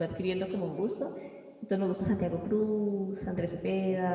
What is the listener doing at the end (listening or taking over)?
taking over